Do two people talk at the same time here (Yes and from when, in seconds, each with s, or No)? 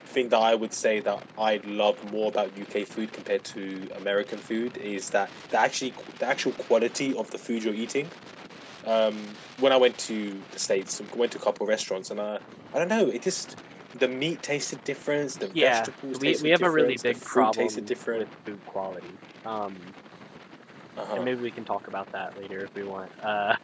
Yes, from 15.4 s